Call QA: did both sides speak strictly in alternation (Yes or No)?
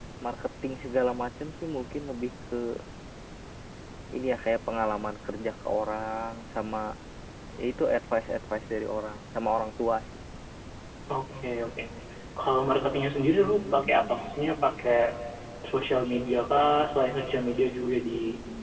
Yes